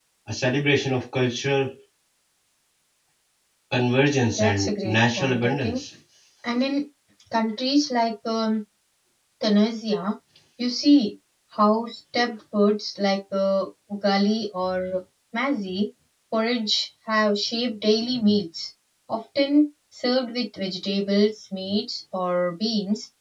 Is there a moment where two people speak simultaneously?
Yes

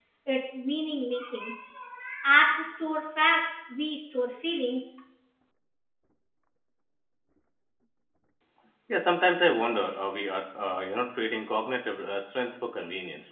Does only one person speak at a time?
Yes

